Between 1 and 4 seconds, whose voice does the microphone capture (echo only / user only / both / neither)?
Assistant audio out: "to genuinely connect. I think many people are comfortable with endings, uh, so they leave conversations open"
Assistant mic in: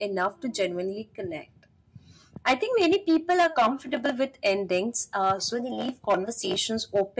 echo only